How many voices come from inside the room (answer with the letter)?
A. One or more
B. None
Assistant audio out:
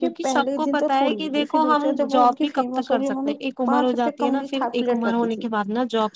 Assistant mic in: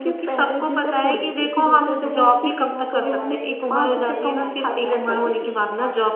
A